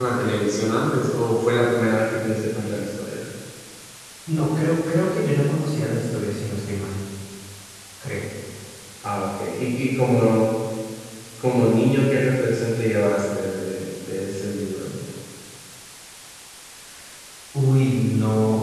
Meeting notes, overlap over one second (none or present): none